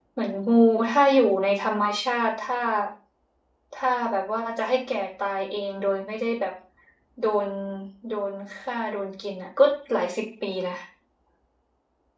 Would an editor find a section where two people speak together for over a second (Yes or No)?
No